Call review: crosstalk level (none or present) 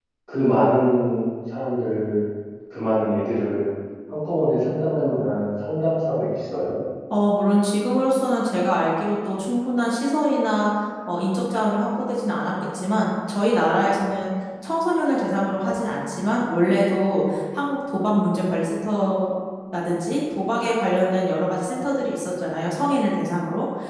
none